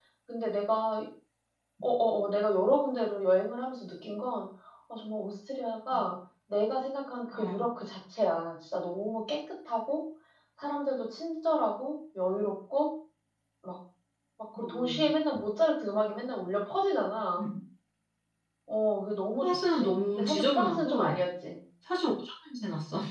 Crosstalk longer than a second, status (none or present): present